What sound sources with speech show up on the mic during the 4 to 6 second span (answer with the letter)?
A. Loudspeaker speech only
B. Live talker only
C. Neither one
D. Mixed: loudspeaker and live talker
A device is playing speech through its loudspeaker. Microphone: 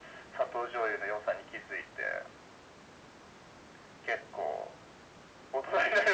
A